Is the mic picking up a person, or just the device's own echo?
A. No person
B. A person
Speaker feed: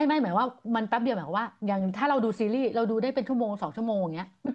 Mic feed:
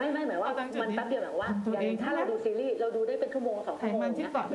B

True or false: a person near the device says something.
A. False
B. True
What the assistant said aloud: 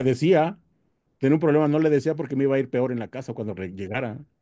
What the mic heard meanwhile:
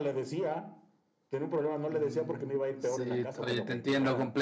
B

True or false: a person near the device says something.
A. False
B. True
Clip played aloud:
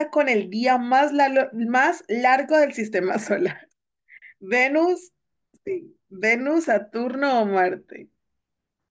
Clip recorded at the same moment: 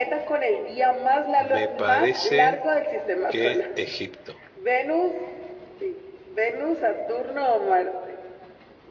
B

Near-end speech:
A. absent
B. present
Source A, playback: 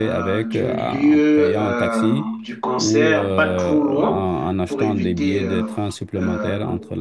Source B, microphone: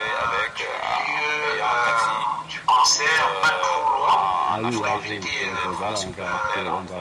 B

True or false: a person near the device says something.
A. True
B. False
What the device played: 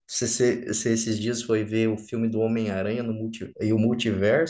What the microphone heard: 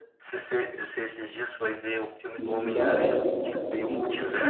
A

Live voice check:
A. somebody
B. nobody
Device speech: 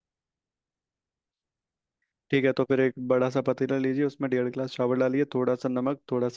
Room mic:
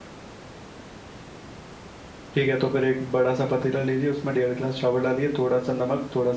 B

